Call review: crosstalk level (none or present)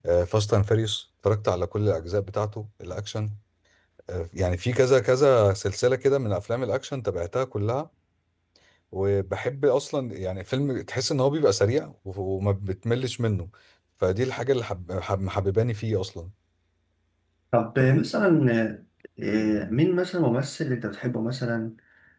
none